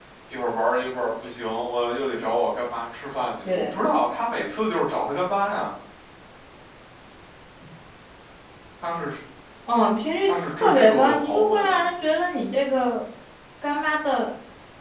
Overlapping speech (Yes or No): Yes